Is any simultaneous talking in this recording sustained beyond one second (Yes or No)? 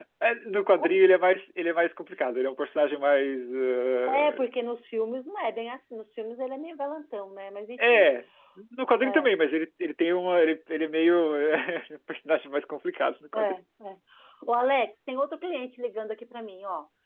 No